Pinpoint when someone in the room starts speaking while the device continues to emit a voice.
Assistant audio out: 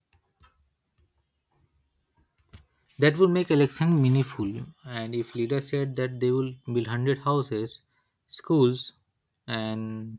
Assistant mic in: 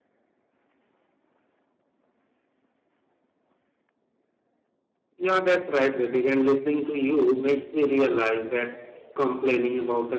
5.2 s

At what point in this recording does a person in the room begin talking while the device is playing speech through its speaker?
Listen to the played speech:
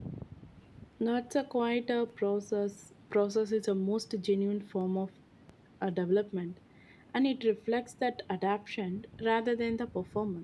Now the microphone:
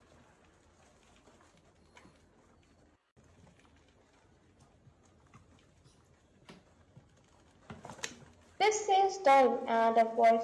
8.6 s

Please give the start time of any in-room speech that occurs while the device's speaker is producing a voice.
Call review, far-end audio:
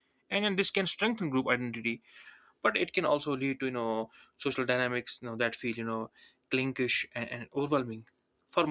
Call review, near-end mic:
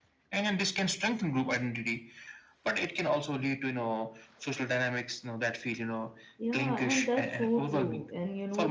6.4 s

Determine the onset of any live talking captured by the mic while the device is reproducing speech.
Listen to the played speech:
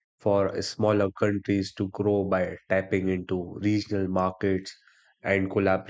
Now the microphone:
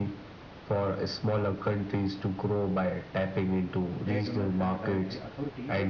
3.9 s

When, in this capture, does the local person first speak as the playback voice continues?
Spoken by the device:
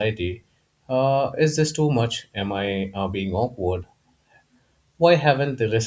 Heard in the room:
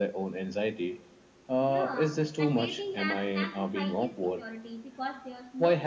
1.6 s

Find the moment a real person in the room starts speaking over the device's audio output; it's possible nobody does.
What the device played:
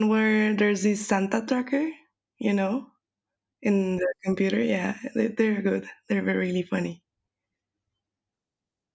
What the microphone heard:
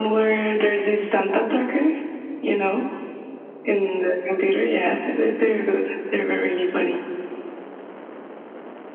none

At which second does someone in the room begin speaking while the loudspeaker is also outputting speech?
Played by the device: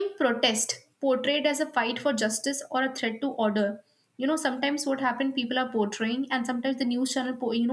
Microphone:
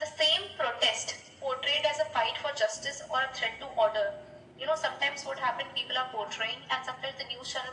none

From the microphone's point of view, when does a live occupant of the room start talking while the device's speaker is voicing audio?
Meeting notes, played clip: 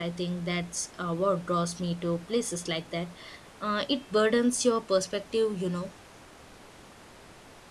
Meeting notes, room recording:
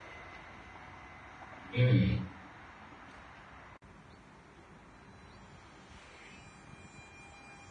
1.7 s

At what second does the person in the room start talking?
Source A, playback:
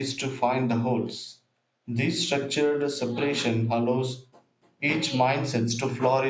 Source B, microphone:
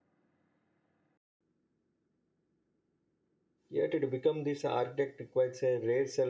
3.7 s

